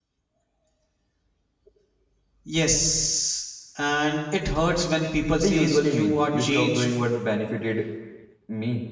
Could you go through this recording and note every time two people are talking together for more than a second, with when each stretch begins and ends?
5.4-6.8

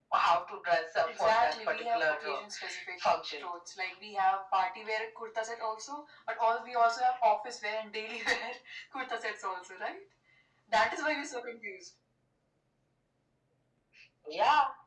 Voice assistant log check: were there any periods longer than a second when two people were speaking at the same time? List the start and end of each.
1.0-2.4

